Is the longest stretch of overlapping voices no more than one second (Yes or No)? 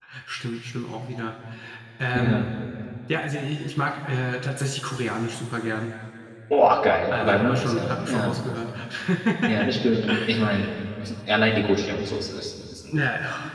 No